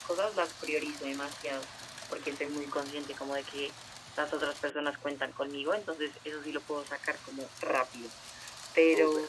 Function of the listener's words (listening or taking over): listening